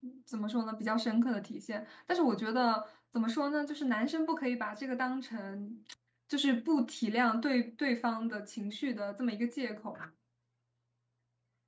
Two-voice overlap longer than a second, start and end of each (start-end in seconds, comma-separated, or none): none